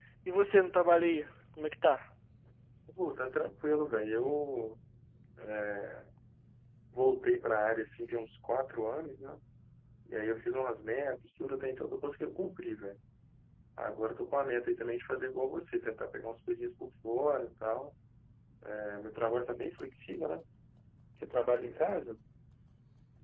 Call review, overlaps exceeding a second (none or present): none